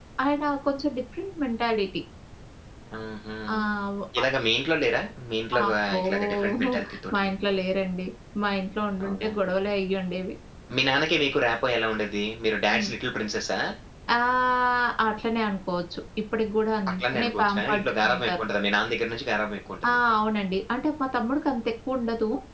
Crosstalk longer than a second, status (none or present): present